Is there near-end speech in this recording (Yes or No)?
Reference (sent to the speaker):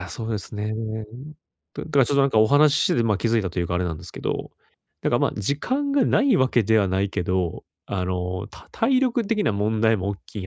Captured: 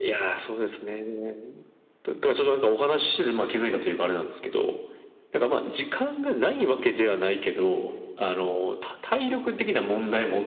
No